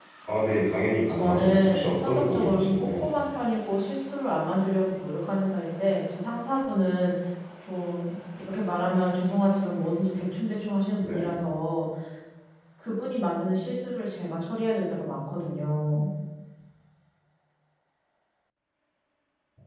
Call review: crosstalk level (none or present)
present